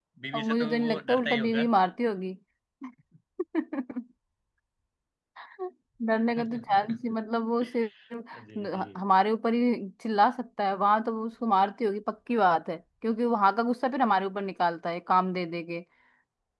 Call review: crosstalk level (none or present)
present